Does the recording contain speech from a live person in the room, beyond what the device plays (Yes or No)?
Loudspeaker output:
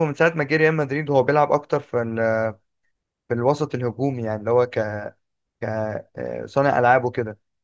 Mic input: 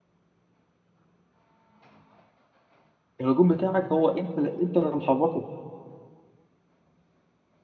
Yes